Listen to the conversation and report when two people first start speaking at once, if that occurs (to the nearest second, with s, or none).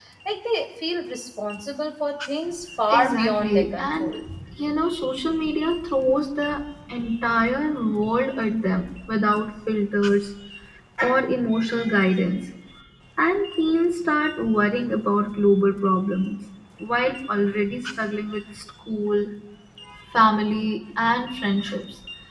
3 s